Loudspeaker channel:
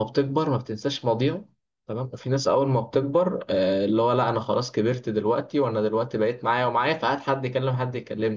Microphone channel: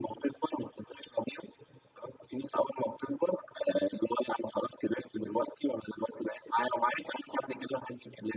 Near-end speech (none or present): none